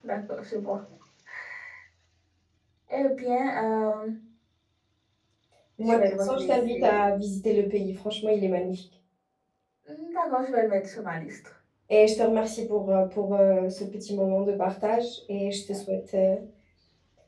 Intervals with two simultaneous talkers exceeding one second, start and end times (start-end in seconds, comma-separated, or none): 5.8-7.0